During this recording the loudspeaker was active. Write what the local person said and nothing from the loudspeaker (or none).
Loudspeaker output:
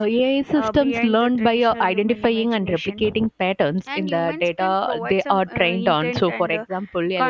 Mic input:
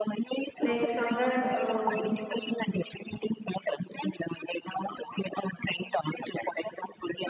like somewhere uh,